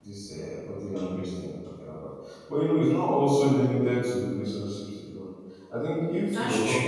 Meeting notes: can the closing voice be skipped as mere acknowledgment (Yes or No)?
Yes